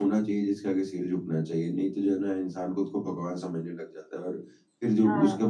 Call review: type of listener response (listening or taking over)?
listening